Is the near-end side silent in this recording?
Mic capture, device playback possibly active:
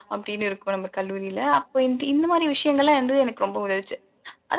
Yes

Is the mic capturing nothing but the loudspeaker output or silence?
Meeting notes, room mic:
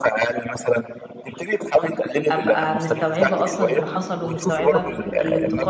No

